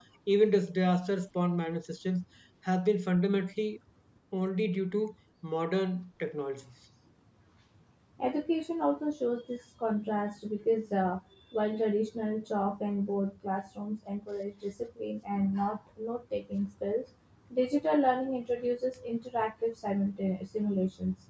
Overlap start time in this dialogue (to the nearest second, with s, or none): none